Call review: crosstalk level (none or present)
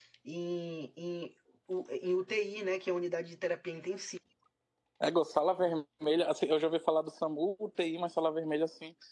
none